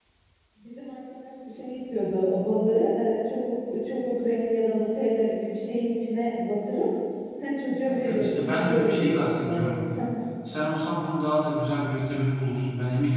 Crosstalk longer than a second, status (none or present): present